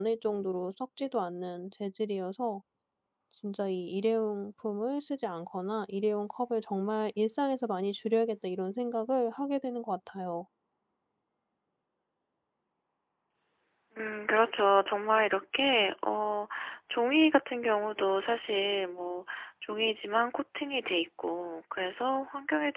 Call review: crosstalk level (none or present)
none